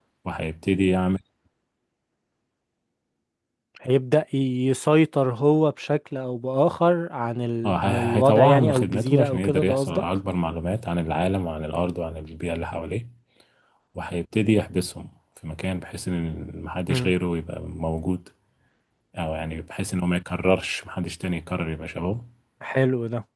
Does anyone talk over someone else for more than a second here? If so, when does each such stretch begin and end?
7.6-10.0

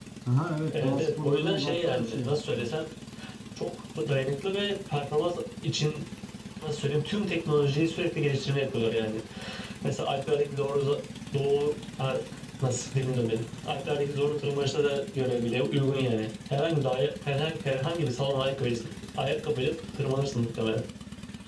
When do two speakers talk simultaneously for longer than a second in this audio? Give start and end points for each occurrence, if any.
0.7-2.7

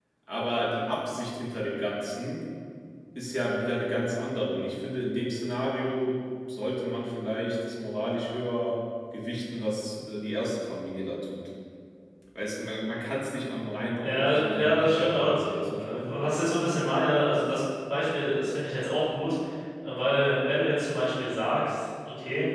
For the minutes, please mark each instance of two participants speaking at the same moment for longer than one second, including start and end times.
14.0-15.3

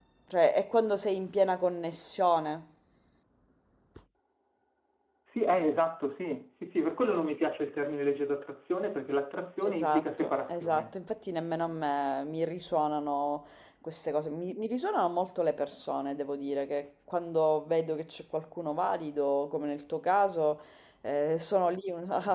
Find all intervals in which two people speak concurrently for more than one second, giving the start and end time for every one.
9.6-11.0

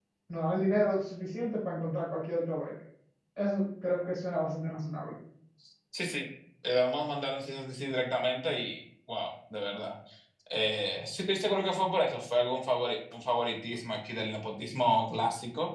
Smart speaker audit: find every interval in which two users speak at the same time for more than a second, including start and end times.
none

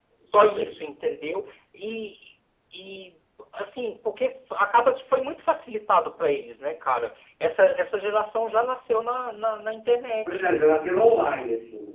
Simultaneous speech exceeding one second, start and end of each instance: none

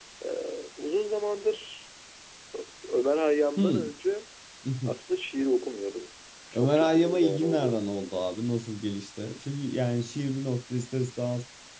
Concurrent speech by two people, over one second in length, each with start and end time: 6.5-7.8

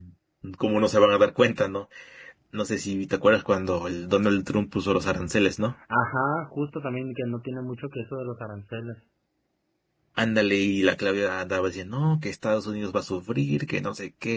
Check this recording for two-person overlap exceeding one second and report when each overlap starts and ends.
none

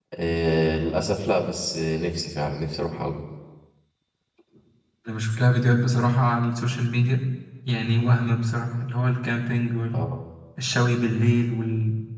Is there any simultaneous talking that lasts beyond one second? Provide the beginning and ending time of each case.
none

